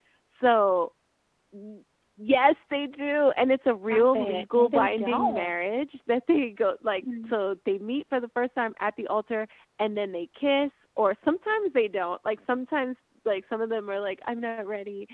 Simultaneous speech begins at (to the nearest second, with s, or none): 4 s